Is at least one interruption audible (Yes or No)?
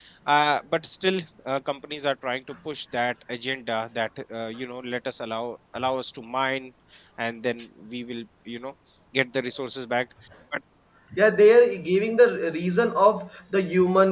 No